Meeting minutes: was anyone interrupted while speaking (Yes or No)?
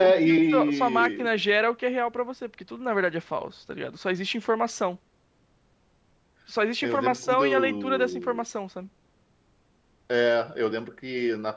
Yes